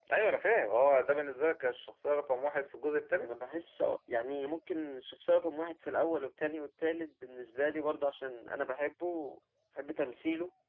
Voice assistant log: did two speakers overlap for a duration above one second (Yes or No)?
No